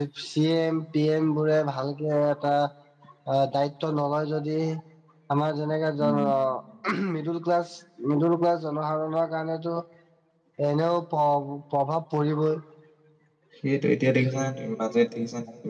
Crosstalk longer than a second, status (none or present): none